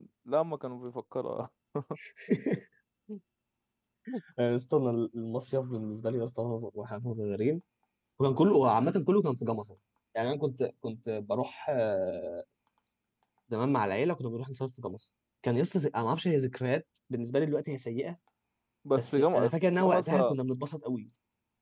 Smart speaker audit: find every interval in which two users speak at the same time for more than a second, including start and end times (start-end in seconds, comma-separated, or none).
19.0-20.3